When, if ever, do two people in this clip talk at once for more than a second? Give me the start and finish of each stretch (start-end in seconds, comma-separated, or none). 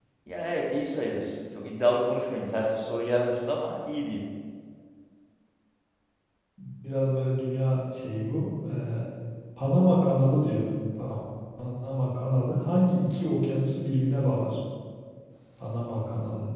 none